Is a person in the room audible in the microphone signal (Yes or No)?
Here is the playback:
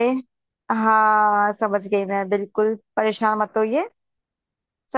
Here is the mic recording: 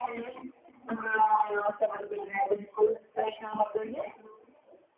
No